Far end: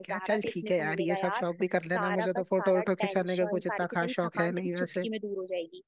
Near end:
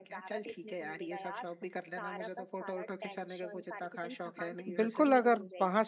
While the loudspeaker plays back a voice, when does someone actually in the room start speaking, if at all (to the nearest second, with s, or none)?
5 s